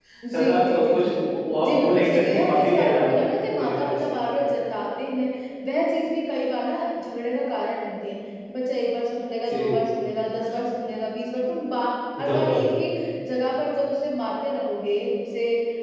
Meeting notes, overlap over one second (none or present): present